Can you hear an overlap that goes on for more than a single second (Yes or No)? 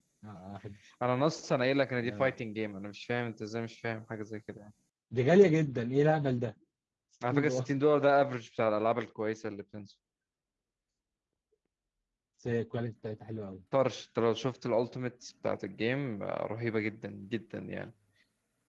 No